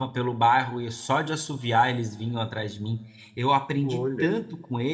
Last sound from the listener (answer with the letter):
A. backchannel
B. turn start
A